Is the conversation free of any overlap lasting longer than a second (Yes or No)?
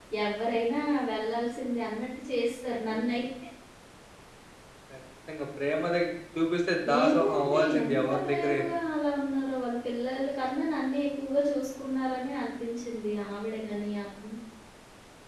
No